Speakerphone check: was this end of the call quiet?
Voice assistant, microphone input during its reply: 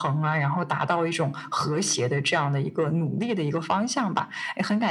Yes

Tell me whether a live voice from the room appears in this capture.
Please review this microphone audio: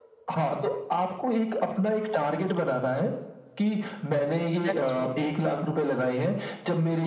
Yes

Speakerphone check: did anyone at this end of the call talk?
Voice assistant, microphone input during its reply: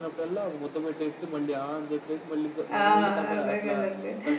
Yes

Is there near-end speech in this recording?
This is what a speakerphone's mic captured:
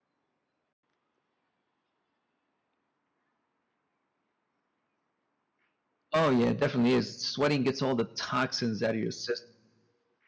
Yes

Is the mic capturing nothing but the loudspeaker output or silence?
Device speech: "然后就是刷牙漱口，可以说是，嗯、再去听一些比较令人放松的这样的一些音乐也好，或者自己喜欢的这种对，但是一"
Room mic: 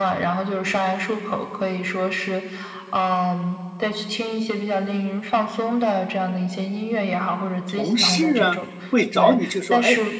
No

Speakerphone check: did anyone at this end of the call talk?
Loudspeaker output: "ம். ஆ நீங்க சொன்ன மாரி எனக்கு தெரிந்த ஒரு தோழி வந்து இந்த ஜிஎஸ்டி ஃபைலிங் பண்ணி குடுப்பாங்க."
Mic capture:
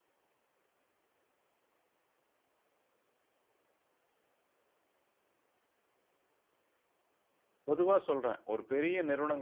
Yes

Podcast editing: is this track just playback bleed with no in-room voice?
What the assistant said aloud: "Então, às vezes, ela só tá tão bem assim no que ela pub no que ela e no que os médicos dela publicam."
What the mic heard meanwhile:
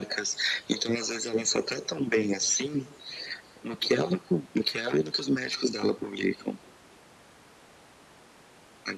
Yes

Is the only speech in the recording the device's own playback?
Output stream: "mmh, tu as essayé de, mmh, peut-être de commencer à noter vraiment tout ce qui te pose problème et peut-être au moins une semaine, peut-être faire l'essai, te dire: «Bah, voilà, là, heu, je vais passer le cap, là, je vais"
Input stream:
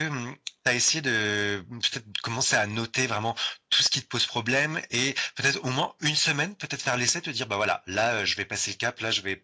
Yes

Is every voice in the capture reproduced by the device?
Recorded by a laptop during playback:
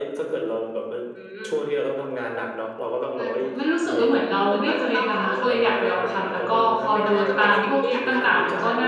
No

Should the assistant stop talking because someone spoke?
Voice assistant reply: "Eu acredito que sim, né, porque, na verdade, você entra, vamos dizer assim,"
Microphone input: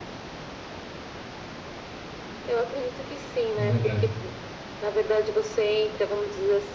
Yes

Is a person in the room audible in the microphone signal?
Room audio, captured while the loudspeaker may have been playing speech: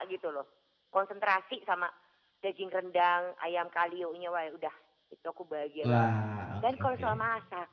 Yes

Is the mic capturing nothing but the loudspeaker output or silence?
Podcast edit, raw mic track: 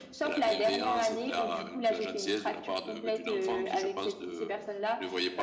Yes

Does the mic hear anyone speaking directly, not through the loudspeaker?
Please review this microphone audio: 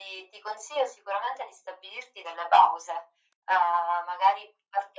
No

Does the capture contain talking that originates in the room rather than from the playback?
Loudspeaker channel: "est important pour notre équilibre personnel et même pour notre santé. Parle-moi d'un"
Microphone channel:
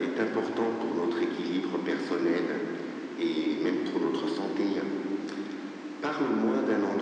No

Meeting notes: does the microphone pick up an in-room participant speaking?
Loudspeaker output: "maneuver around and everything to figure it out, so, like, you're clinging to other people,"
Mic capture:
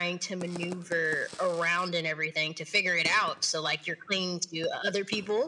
No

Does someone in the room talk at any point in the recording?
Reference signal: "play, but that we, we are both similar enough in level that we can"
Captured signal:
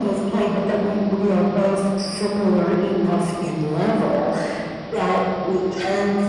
No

